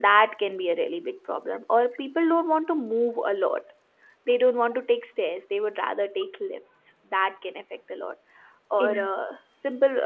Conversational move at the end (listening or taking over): listening